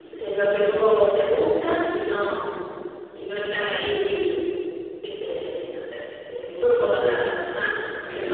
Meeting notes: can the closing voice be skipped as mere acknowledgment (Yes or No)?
No